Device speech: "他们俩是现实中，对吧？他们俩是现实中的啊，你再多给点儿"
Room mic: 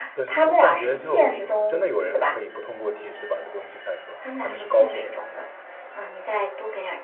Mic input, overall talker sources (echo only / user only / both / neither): both